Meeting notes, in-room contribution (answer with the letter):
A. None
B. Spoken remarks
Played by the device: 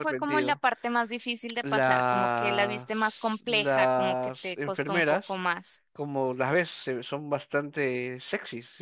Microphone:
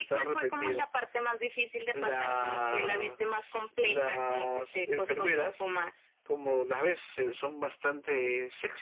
A